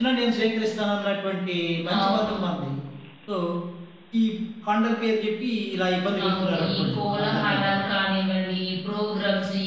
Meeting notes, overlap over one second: present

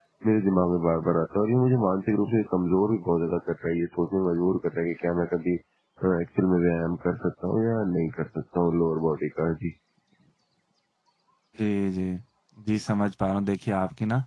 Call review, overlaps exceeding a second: none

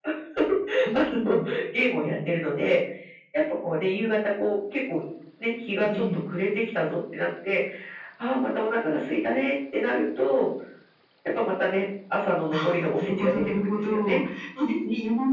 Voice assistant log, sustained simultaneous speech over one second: present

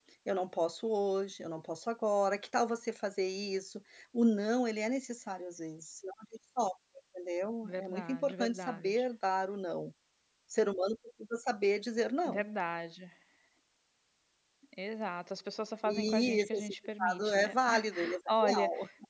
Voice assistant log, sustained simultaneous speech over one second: present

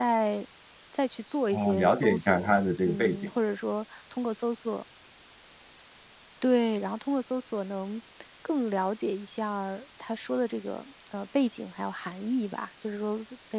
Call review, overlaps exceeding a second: present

